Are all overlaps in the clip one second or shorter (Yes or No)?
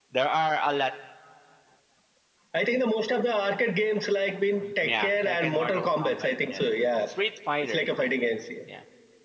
No